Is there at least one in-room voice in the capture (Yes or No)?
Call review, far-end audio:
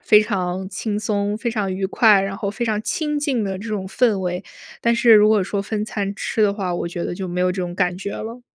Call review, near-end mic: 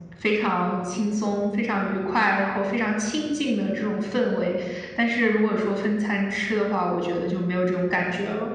No